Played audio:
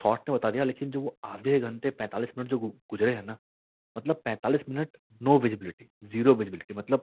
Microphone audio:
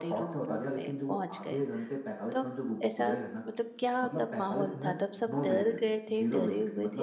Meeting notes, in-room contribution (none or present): present